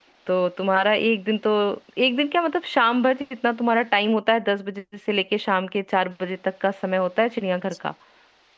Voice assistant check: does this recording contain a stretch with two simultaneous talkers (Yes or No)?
No